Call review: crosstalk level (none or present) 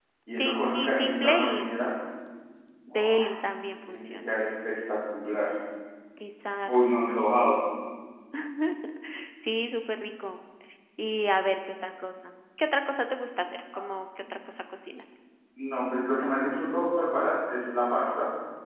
present